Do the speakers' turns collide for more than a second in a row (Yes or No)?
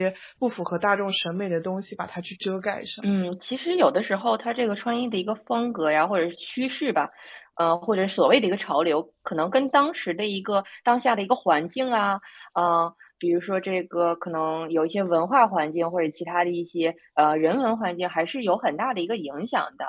No